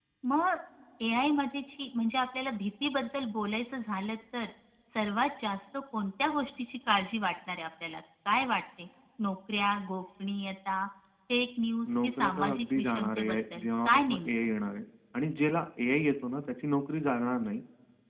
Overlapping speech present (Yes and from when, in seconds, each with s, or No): Yes, from 12.0 s